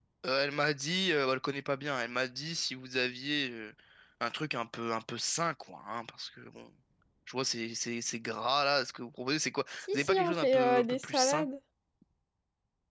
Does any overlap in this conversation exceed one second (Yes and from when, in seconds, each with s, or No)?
Yes, from 9.8 s